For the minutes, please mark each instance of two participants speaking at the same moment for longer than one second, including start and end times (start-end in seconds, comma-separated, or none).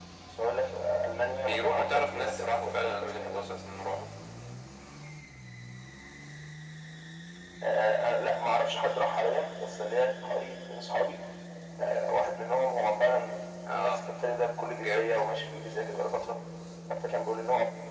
1.4-3.5